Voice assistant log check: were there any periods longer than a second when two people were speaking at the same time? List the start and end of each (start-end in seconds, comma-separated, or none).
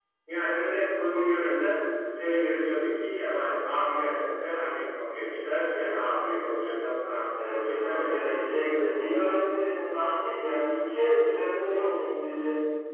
7.3-8.9